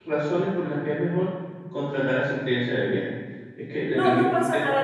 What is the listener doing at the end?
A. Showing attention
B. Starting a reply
B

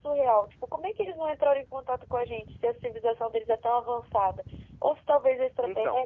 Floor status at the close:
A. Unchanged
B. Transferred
A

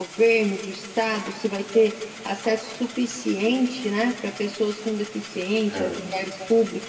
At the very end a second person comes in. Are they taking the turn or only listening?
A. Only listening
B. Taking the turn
A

